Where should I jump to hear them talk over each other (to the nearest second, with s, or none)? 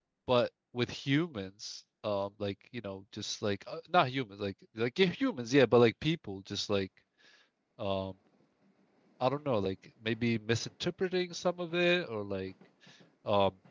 none